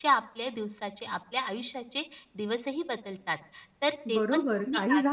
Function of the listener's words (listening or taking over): taking over